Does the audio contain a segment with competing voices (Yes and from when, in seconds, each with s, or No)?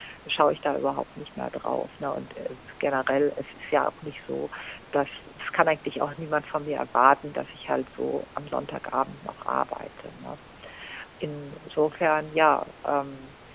No